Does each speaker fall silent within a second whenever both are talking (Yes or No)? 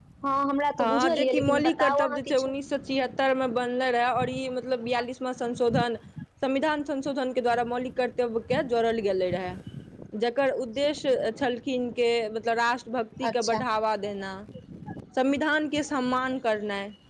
No